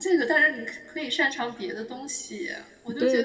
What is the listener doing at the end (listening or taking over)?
taking over